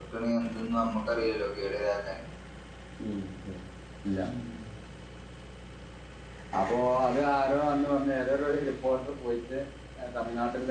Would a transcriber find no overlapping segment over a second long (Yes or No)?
Yes